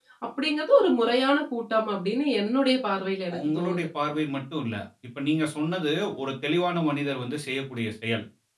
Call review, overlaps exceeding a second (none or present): none